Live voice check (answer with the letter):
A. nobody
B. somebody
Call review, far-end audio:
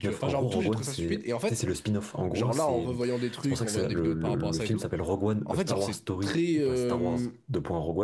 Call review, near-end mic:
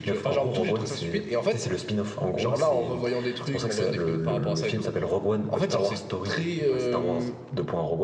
A